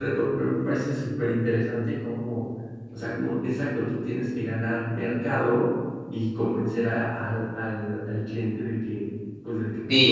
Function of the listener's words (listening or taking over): taking over